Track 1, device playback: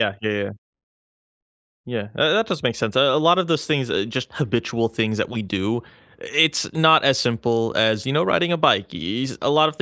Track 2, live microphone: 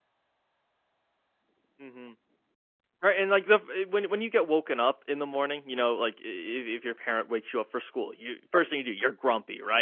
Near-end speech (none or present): present